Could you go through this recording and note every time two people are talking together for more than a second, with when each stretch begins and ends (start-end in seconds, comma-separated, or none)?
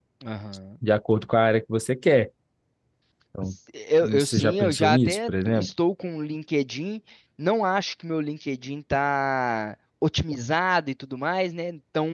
4.0-5.7